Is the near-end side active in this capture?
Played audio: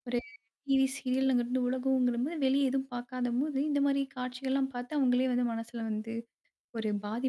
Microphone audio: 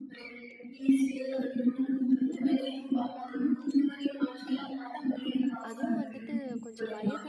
Yes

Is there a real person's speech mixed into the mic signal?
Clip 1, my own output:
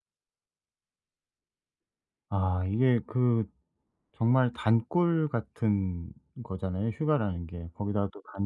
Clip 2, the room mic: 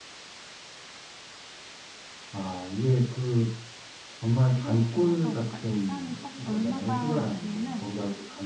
Yes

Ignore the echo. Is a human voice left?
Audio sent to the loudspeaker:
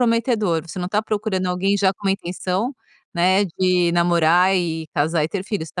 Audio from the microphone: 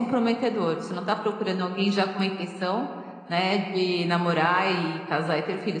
No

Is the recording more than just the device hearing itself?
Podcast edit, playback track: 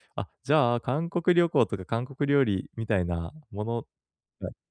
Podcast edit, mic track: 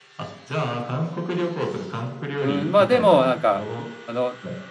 Yes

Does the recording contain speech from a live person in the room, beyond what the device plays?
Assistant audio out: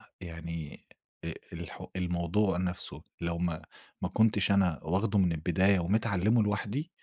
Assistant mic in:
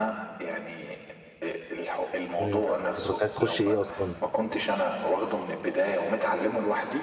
Yes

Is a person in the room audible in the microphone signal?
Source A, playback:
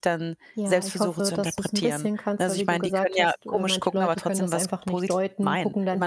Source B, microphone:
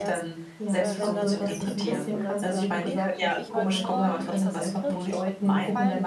Yes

